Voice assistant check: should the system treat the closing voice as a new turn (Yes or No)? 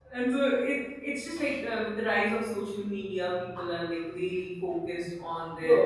Yes